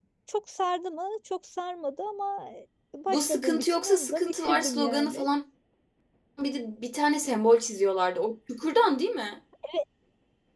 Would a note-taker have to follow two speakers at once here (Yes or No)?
Yes